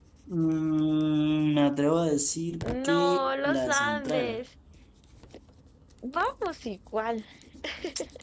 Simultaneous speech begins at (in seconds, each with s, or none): 2.6 s